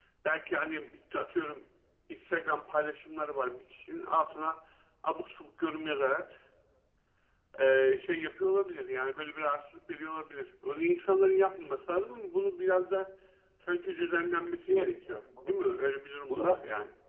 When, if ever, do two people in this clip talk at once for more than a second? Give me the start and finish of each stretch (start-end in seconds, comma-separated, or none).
14.3-15.6